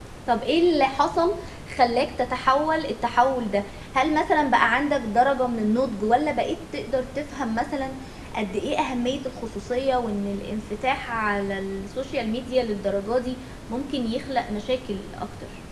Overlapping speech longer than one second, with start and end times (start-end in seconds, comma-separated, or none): none